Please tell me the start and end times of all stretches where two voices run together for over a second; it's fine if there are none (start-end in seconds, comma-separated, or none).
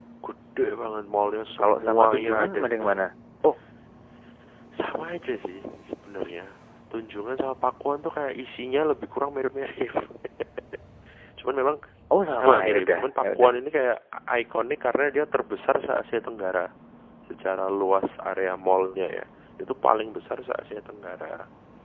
1.6-3.0, 12.3-13.5